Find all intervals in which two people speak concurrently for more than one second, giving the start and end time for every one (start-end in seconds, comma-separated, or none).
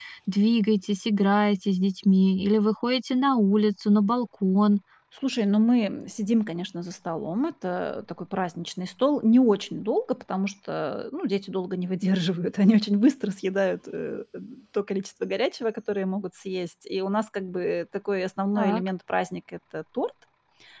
none